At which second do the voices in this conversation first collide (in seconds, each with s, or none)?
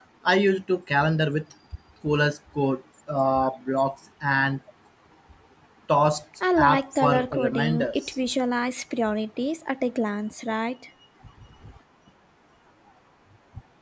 6.6 s